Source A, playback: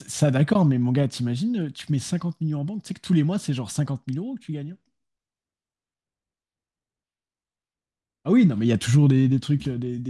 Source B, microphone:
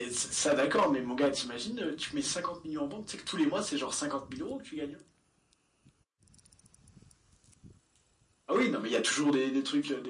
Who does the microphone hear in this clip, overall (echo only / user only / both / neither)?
echo only